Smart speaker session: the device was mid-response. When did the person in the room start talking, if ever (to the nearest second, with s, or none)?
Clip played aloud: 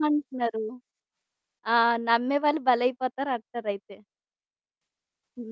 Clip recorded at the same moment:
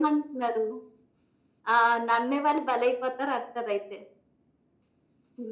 none